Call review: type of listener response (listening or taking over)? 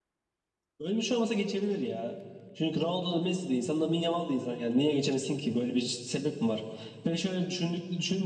listening